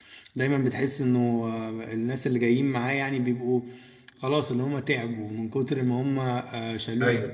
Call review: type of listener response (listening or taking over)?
listening